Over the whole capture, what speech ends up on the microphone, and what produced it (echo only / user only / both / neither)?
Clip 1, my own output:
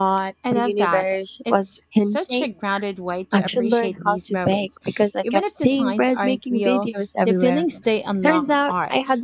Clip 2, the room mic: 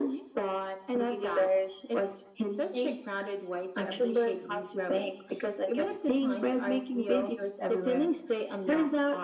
echo only